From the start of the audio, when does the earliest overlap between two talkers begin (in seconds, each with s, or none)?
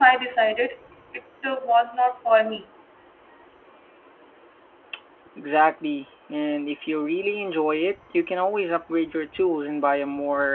none